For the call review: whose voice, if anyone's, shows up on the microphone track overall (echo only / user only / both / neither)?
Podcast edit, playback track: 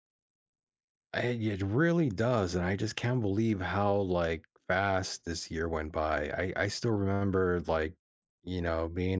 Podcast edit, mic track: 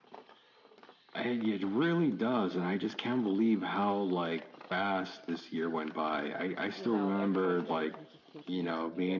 both